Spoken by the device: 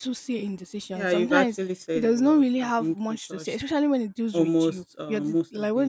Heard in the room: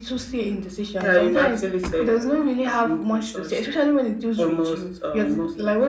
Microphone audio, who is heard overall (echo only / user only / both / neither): echo only